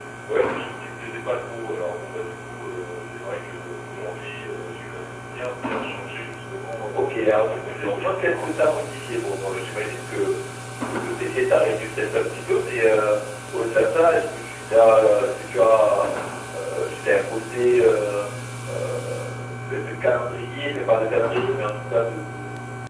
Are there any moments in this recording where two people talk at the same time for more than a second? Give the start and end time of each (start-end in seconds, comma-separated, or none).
6.9-8.9